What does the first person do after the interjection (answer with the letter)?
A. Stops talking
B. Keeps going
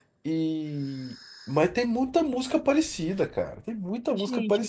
A